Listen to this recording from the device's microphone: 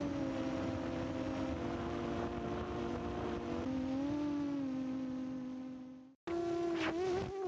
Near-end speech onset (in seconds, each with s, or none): none